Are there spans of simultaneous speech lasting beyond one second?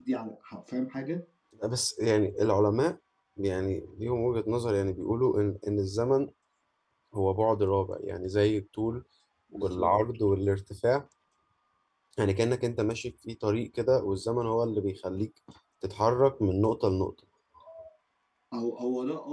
No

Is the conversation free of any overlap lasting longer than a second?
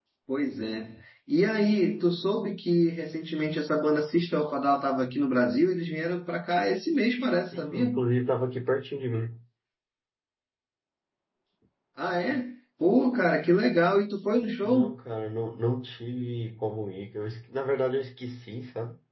Yes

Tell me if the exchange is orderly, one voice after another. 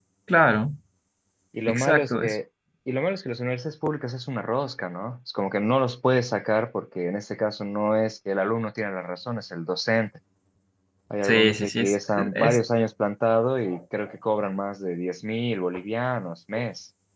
No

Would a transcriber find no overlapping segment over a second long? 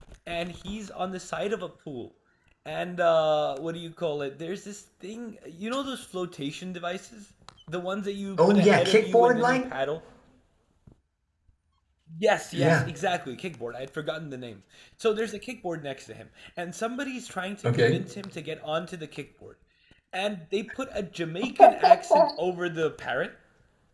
No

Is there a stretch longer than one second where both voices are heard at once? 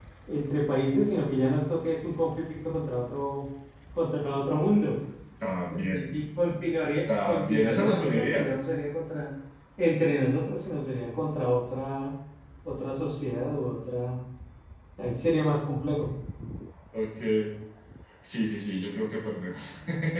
Yes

